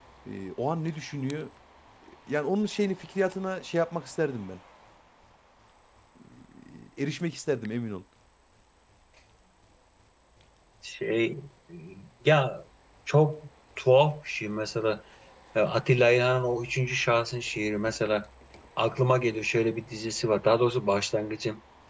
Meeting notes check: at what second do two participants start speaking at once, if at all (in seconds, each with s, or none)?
none